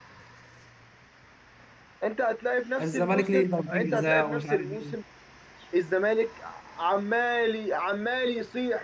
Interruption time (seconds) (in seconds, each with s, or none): 2.8 s